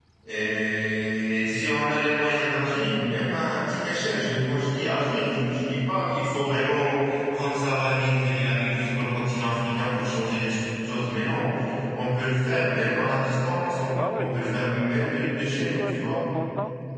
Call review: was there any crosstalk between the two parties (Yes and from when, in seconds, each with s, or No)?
Yes, from 13.9 s